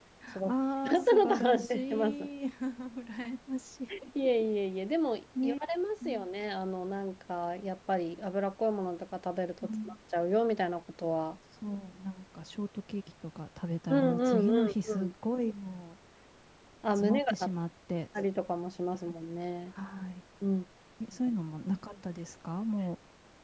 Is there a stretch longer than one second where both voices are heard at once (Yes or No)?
Yes